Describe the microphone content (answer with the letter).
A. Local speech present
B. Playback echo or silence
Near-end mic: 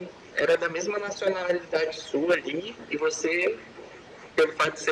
B